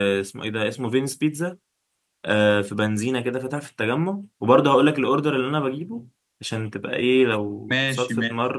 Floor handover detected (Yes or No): No